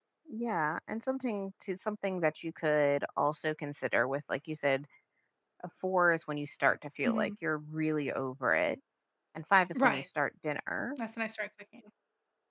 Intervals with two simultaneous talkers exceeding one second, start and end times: none

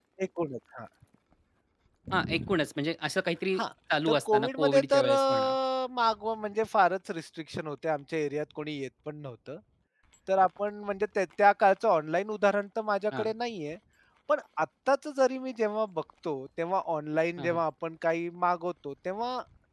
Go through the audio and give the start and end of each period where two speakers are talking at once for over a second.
4.1-5.5

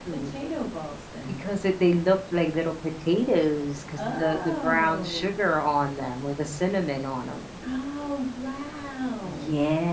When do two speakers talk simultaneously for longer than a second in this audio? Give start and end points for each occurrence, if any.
4.0-5.3

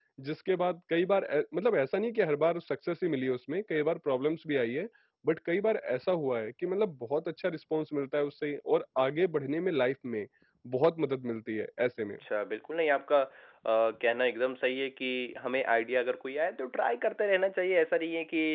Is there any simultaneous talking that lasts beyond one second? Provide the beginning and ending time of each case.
none

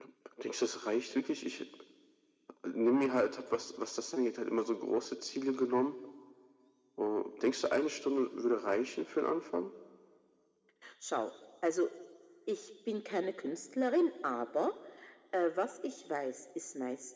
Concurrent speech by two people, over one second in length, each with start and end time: none

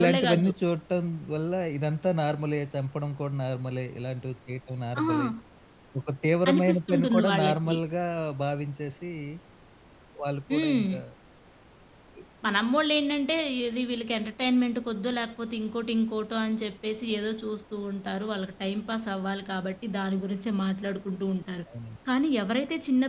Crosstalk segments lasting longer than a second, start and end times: 6.5-7.8

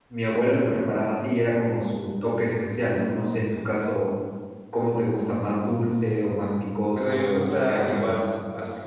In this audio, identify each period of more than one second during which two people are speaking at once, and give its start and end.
7.0-8.2

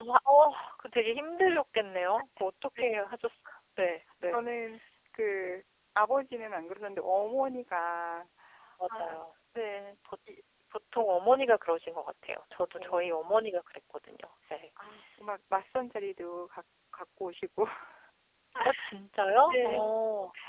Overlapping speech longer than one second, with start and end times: none

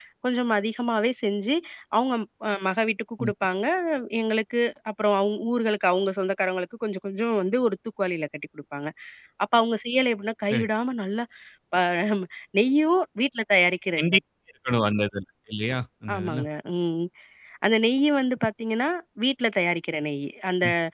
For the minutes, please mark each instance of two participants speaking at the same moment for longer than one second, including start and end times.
none

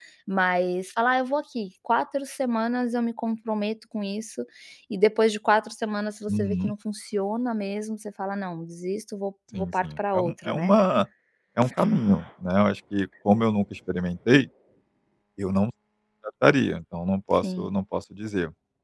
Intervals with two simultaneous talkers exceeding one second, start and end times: 9.5-10.7

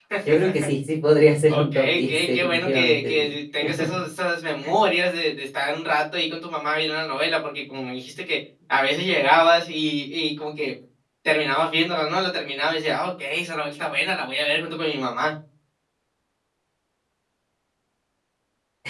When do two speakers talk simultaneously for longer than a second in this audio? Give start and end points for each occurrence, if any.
1.5-3.3

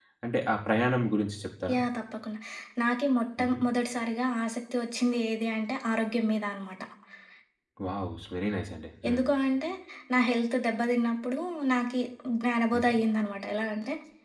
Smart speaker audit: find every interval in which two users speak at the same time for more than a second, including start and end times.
none

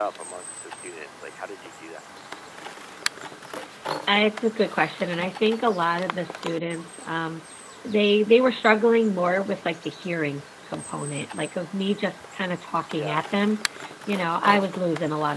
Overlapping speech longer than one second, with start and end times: none

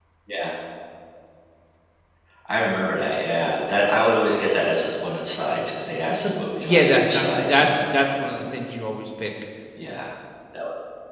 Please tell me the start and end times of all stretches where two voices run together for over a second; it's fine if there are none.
6.6-7.8

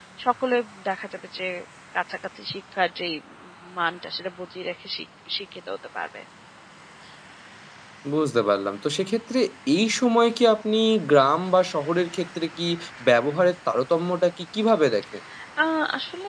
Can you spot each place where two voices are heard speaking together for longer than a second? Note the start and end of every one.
none

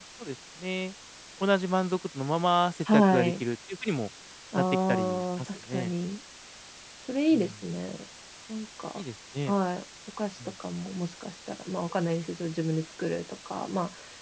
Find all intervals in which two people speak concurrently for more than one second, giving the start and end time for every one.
4.6-5.9

